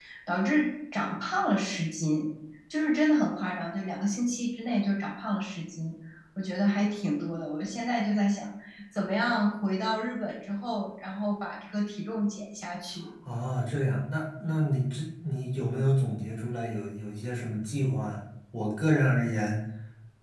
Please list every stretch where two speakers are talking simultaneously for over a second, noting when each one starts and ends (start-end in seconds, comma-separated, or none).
none